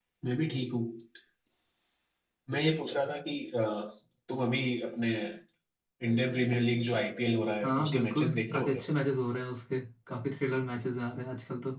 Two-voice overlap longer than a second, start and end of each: 7.6-8.8

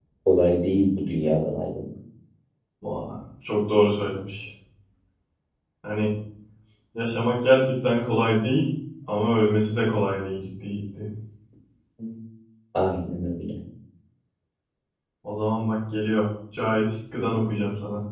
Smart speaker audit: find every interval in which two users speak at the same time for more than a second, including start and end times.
none

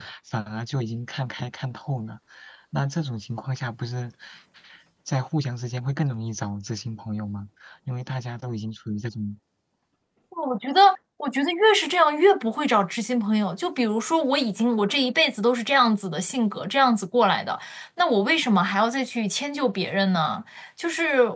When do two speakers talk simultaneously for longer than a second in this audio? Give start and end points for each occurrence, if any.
none

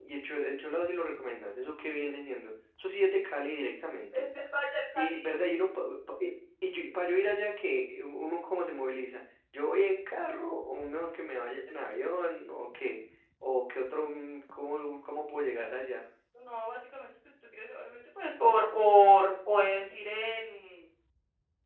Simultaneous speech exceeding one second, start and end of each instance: none

